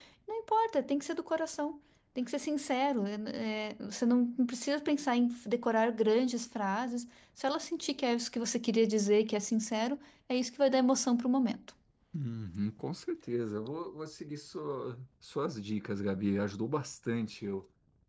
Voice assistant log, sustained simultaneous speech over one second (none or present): none